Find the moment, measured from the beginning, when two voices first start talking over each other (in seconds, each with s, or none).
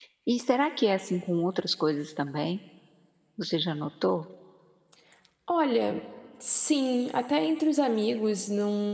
none